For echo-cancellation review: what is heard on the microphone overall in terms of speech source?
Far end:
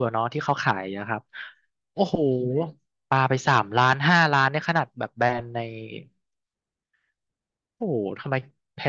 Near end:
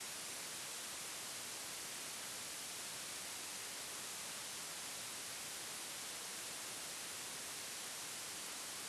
neither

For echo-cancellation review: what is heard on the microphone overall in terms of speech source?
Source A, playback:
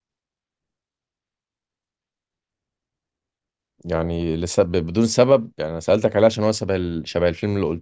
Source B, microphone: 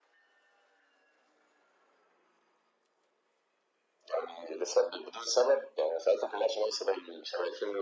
echo only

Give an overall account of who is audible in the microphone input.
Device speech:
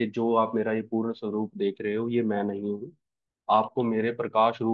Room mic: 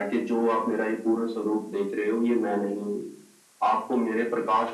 echo only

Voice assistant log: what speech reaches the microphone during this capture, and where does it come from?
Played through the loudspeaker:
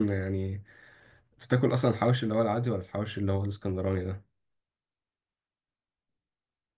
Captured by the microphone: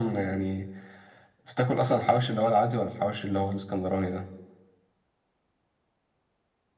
echo only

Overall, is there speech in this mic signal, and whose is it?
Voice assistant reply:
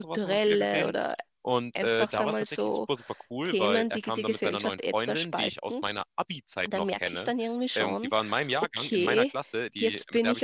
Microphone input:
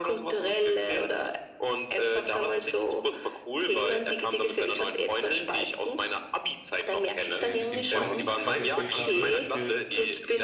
both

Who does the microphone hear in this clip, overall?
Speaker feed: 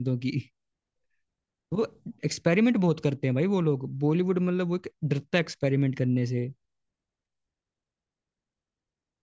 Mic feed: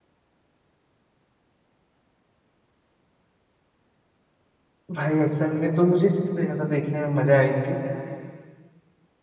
user only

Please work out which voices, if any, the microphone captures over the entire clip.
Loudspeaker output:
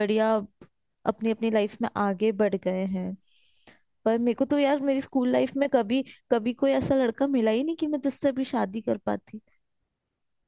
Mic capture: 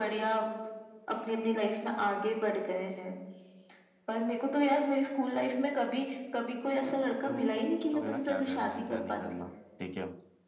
both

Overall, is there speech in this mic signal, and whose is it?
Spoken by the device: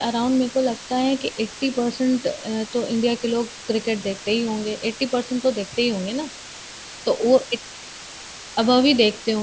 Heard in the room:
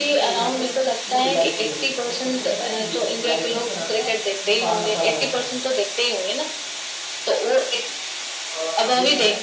both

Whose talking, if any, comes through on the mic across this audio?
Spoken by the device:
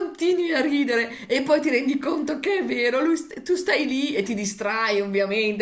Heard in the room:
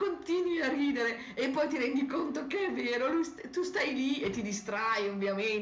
echo only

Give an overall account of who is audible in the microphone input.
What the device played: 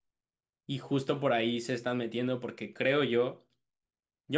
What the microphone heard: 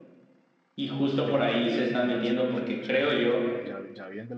both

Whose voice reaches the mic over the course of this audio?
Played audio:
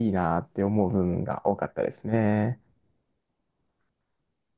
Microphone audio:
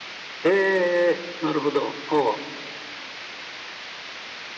user only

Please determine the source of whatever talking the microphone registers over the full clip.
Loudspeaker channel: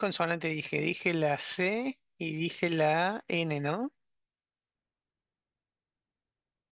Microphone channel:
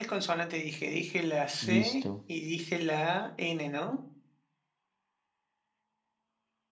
both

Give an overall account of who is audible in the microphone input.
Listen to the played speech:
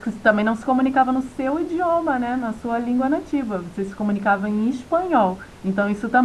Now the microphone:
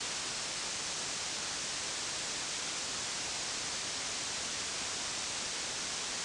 neither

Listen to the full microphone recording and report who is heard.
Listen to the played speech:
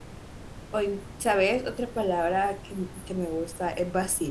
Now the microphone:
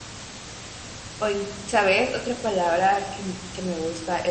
echo only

